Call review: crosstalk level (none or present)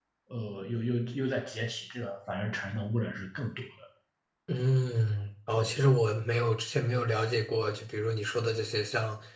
none